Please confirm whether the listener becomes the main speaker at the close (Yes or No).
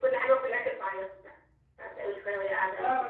No